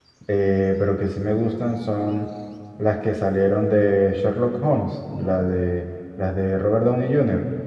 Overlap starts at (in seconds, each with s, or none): none